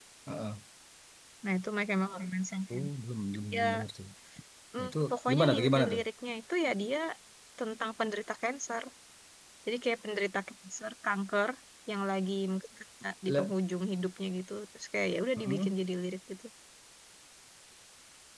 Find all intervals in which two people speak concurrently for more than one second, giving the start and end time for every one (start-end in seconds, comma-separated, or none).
4.8-6.0